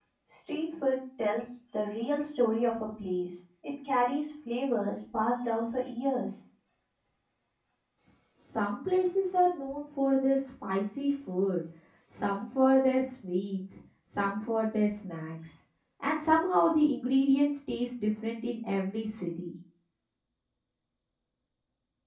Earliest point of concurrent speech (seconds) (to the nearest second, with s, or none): none